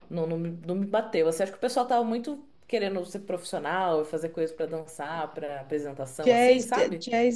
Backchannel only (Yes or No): No